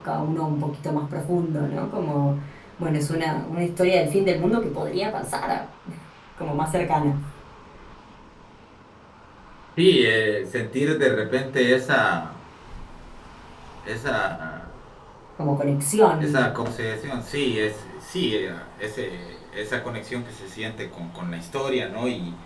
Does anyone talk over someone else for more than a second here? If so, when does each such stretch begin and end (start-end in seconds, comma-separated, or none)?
none